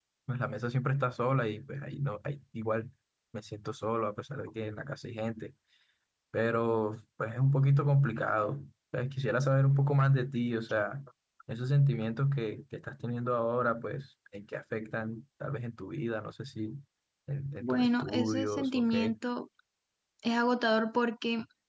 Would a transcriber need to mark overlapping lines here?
Yes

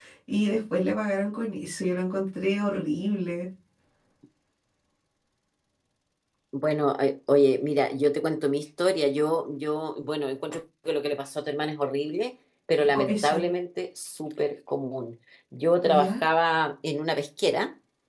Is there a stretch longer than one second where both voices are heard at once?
No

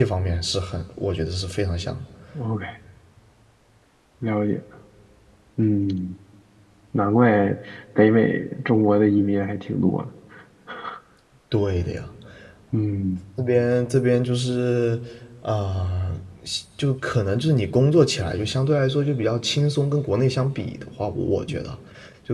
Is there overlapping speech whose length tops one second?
No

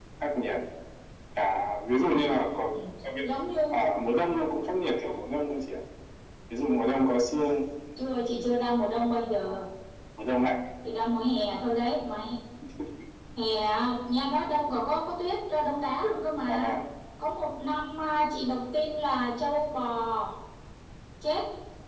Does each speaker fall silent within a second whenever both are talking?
Yes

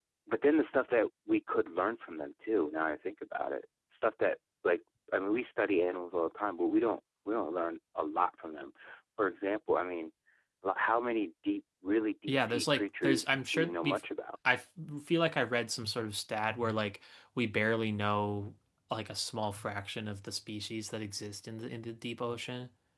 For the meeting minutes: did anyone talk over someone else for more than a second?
Yes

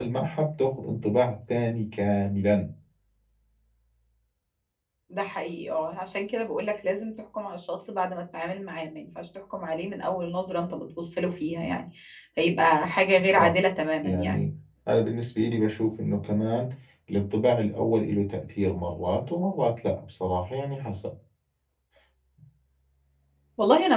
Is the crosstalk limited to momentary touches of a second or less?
Yes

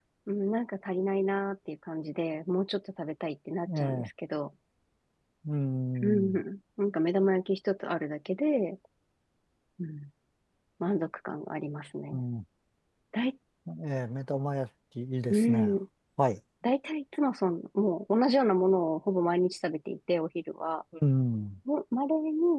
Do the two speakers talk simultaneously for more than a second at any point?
No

